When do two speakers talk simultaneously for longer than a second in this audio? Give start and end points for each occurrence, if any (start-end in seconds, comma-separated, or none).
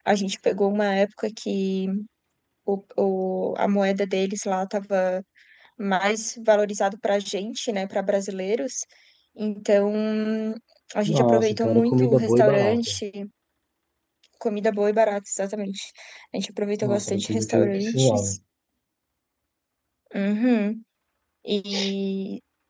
11.1-13.0, 16.8-18.4